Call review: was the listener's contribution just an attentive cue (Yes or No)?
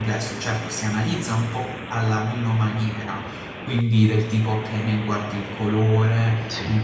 Yes